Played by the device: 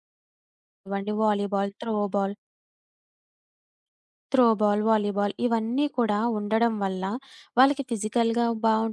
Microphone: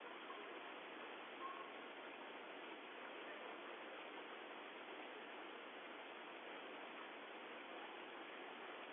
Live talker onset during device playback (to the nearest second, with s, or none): none